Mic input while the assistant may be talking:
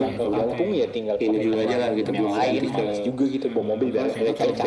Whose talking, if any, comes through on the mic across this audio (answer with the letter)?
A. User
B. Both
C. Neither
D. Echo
B